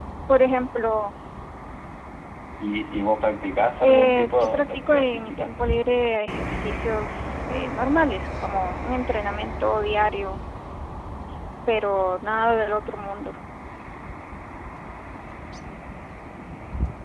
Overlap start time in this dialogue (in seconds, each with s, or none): 3.8 s